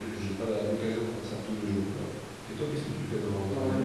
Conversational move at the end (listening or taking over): taking over